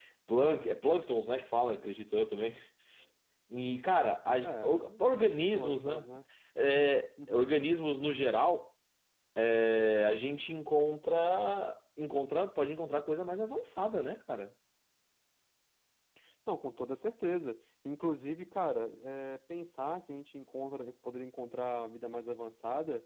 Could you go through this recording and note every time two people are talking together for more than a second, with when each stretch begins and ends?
4.4-6.0

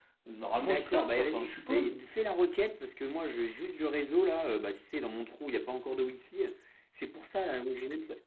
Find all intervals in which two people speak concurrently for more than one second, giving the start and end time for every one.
0.6-2.0

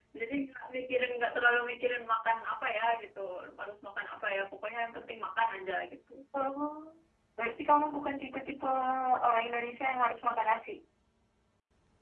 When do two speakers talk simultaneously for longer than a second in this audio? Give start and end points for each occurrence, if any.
none

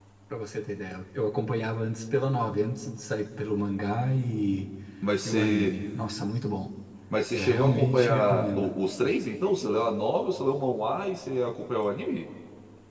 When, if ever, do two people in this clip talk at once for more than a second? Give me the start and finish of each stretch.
7.3-8.7

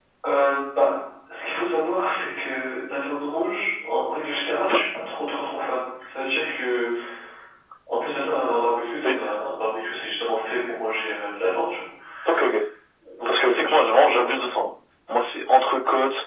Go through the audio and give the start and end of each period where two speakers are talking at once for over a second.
13.3-14.5

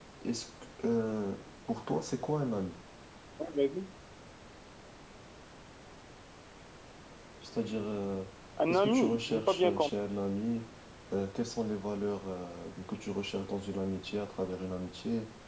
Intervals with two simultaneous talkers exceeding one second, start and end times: 8.7-9.9

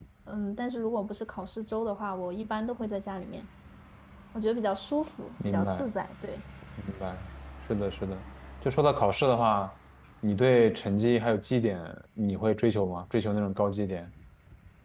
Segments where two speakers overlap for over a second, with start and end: none

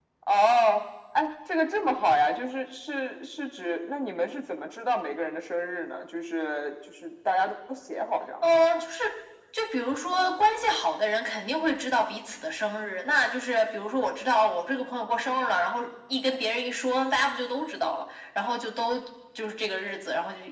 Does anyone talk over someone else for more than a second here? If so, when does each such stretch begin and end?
none

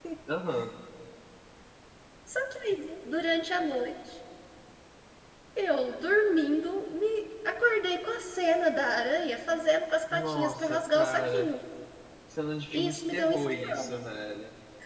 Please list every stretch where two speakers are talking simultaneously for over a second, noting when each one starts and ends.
10.1-11.5, 12.7-14.0

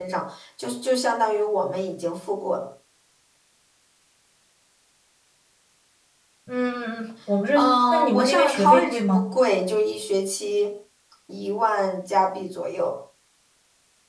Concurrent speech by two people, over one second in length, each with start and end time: 7.5-9.3

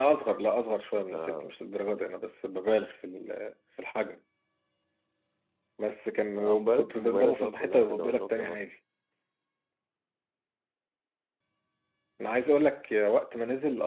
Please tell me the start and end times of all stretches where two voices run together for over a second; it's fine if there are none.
6.3-8.6

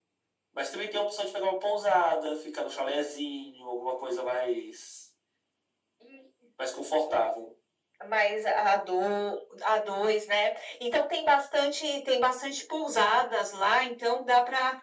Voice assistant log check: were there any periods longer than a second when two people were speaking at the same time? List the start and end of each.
none

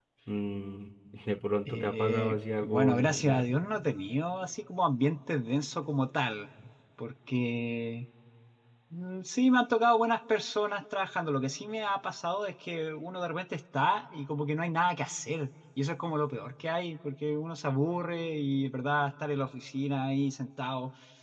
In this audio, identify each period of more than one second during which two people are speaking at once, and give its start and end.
1.6-3.4

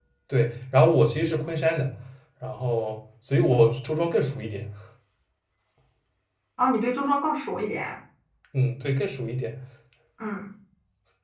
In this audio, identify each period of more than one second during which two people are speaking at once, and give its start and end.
none

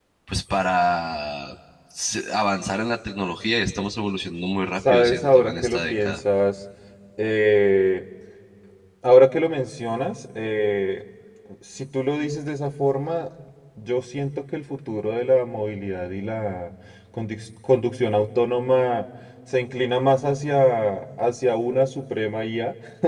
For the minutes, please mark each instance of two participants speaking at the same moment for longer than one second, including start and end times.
4.9-6.2

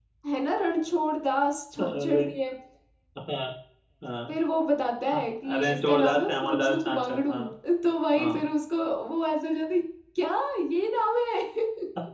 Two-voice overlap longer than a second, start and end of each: 5.1-7.3

